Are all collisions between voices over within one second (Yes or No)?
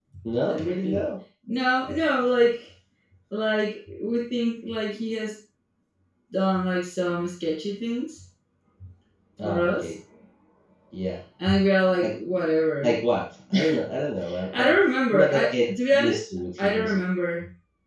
No